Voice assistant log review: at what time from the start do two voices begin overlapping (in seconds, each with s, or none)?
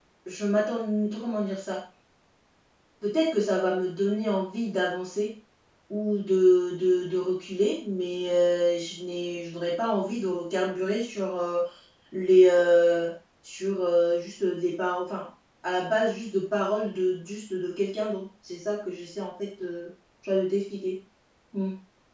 none